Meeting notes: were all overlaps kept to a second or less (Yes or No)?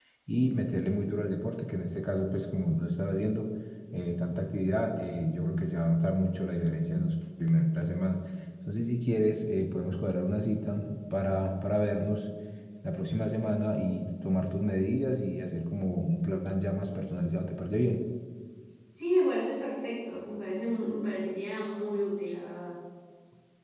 Yes